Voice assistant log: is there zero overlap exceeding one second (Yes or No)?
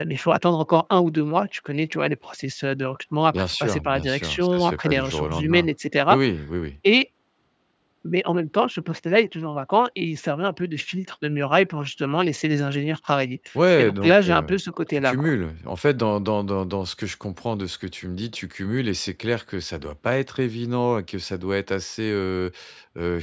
No